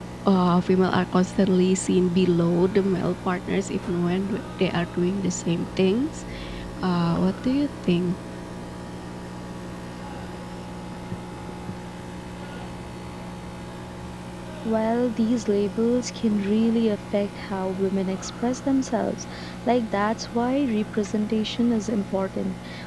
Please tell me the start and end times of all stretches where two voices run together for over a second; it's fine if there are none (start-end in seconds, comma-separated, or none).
none